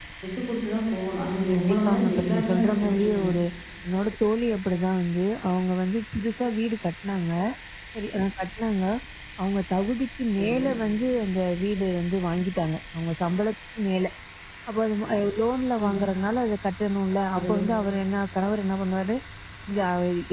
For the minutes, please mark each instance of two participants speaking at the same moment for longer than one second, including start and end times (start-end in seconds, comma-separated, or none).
1.5-3.4